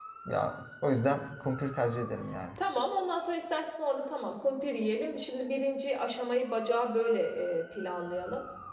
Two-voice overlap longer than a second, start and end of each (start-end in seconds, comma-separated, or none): none